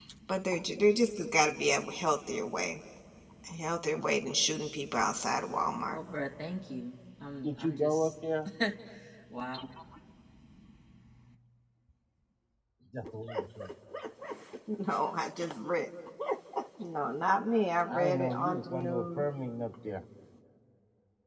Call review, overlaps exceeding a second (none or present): present